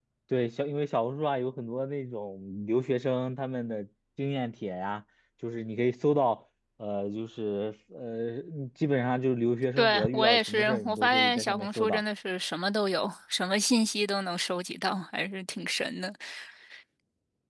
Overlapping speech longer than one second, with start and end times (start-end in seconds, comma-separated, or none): 9.8-12.0